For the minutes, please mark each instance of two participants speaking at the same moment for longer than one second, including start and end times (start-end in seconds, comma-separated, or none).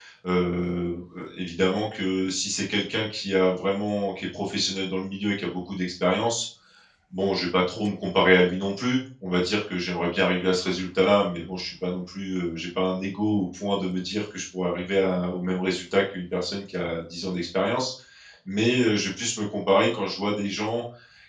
none